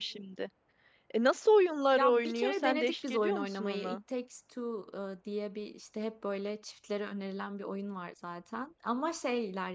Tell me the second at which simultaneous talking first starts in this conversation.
1.9 s

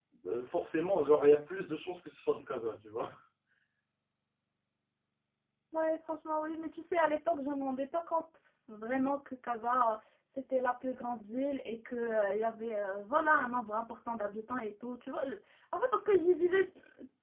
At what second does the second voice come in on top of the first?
none

